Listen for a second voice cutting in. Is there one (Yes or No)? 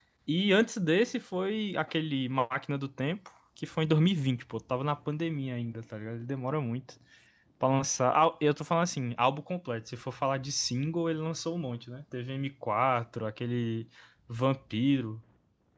No